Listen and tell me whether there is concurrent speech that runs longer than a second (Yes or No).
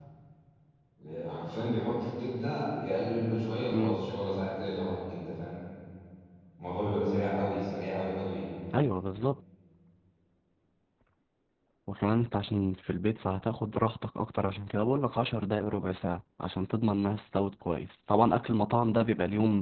No